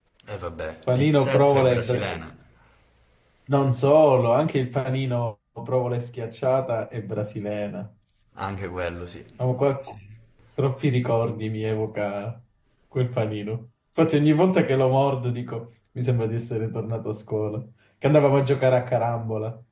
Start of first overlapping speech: 0.9 s

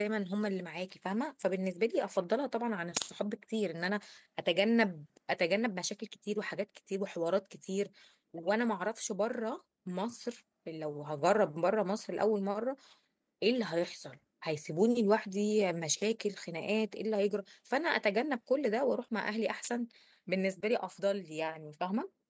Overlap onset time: none

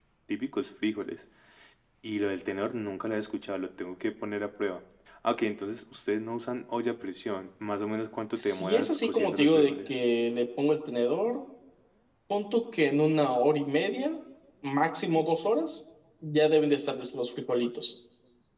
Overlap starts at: 8.3 s

